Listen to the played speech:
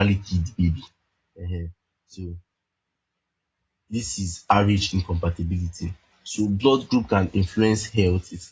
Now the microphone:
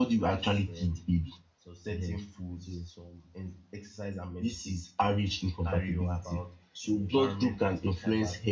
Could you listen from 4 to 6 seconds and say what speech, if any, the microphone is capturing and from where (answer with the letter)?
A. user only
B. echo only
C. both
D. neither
C